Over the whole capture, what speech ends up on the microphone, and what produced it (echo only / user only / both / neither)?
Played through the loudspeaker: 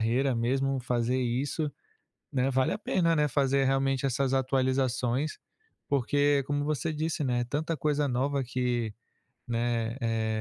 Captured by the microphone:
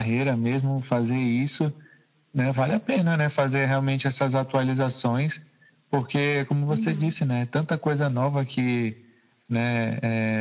both